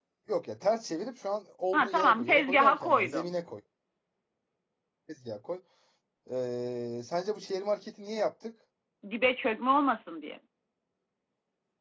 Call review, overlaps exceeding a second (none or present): present